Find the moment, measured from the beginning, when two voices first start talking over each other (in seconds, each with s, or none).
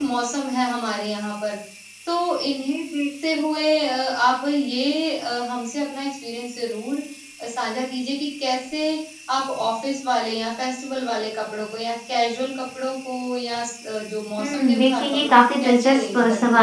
14.4 s